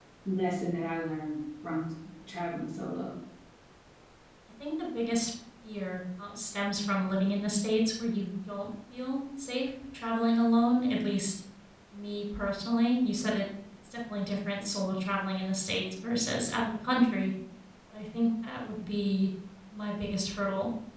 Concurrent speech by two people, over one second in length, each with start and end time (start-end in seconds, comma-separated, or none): none